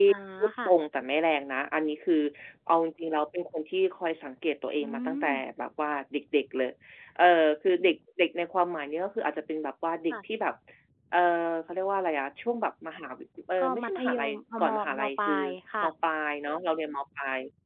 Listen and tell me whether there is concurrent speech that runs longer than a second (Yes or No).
Yes